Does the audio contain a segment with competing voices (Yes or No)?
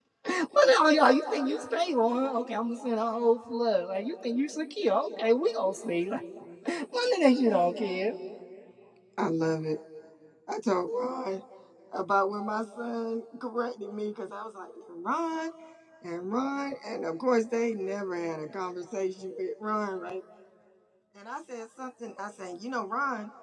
No